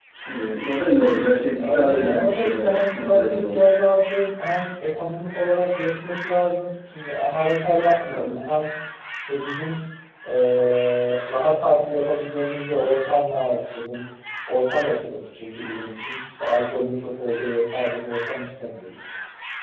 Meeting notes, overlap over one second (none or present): present